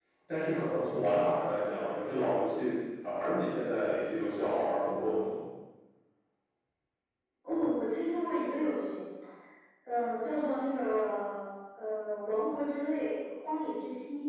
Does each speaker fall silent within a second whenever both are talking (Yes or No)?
Yes